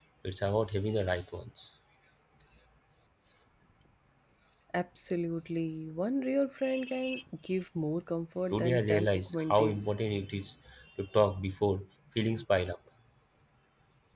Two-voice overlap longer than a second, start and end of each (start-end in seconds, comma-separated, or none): 8.5-10.0